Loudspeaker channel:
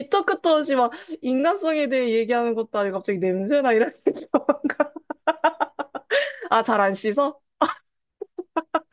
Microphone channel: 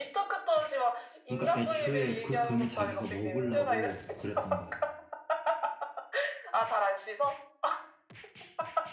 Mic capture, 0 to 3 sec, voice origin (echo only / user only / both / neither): both